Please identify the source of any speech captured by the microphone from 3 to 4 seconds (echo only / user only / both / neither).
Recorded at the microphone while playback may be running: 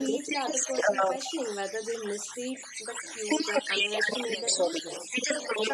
both